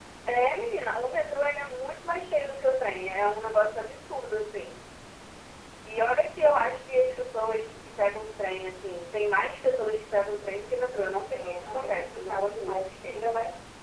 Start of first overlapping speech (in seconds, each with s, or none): 11.0 s